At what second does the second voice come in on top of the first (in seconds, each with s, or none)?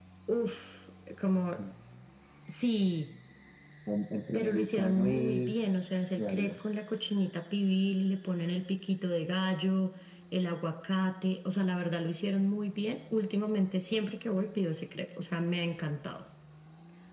4.3 s